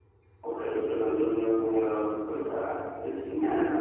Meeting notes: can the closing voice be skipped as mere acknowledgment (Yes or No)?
Yes